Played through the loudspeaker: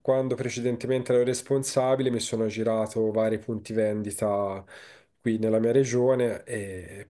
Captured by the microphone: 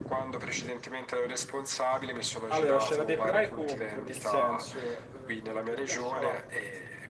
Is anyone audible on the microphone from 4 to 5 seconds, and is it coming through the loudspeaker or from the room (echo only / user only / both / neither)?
both